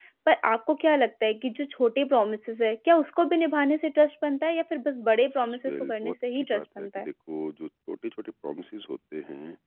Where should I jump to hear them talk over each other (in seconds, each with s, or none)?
5.3 s